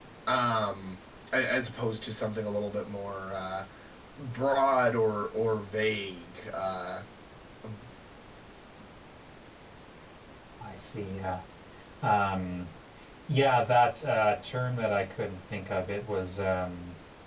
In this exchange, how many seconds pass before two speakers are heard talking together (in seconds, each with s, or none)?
none